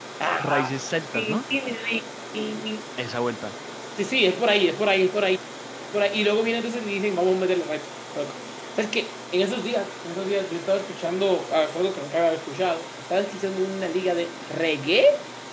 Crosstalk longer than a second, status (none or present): none